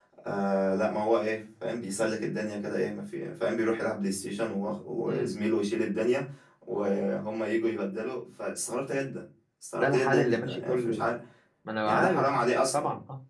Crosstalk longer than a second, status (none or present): present